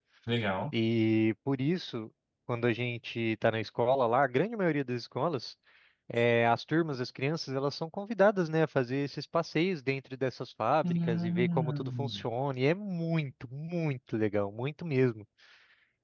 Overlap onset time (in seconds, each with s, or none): 10.8 s